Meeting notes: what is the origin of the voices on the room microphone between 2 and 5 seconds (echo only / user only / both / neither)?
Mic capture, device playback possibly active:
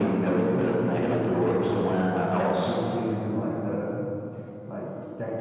echo only